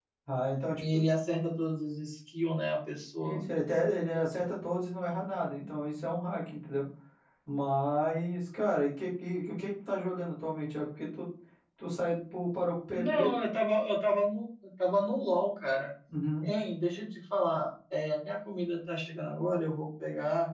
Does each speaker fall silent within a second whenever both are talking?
Yes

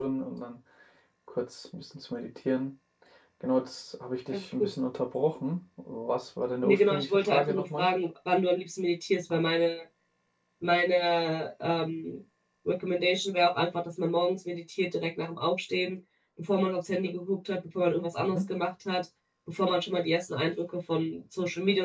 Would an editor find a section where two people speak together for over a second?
Yes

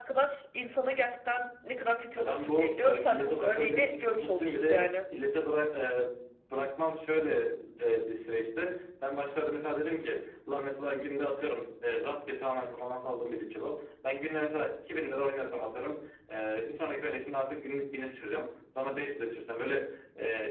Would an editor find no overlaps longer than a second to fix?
No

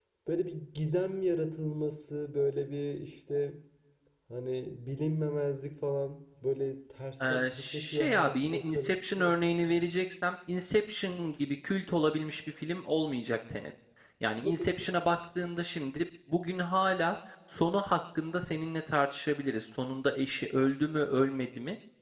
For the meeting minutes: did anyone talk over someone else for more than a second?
Yes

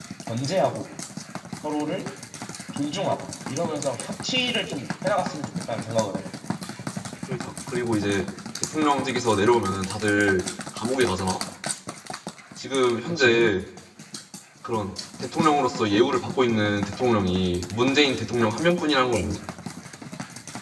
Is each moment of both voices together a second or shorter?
Yes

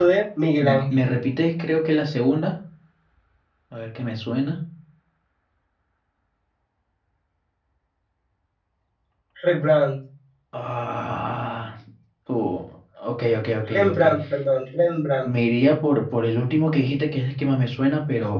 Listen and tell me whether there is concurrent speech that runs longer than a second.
No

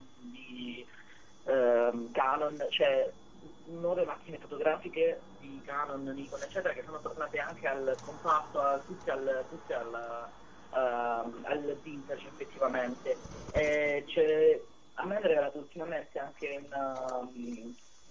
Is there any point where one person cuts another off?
No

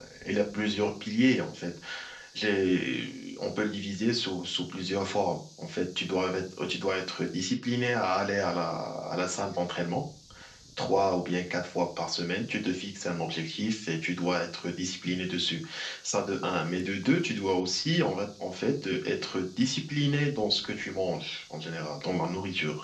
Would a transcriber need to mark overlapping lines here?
No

